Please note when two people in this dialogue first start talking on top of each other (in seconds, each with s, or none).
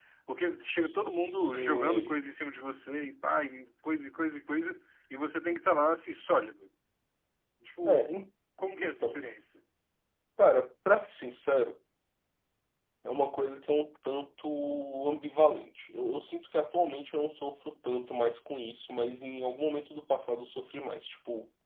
0.8 s